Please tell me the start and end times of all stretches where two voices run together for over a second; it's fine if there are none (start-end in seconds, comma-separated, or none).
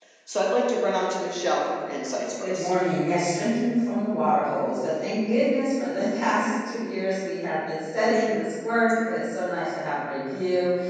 none